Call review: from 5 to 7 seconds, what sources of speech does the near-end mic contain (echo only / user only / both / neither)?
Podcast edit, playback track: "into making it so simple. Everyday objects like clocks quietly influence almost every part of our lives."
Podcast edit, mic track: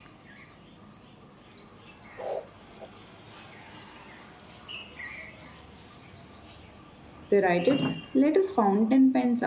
neither